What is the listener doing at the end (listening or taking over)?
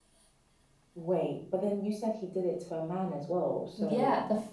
taking over